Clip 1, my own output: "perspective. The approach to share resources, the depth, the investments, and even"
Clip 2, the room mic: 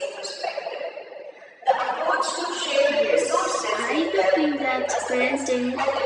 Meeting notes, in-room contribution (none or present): present